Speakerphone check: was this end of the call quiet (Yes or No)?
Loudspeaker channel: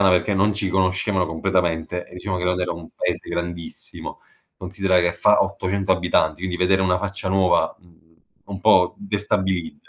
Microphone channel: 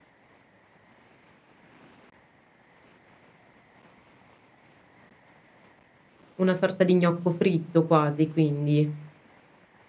No